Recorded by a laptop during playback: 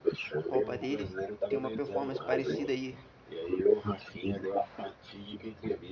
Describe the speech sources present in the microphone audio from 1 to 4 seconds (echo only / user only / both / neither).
both